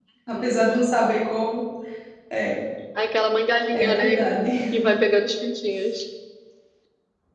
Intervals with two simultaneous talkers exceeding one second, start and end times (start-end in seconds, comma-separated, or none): none